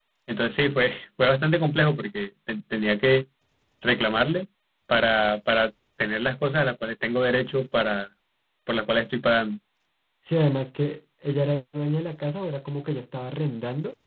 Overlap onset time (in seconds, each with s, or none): none